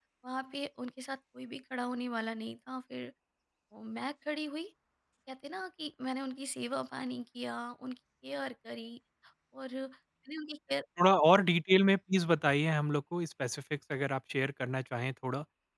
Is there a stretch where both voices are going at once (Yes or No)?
No